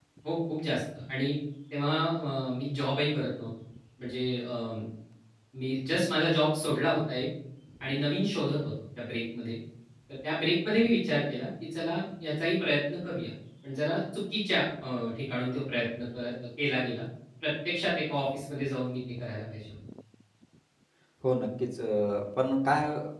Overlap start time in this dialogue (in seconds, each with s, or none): none